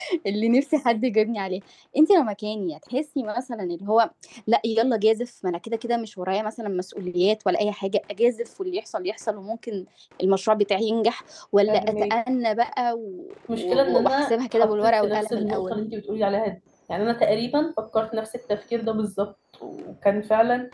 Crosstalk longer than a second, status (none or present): present